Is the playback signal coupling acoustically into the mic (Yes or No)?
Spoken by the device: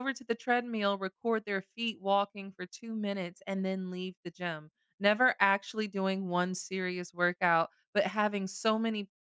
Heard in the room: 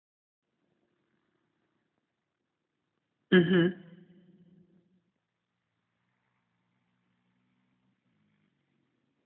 No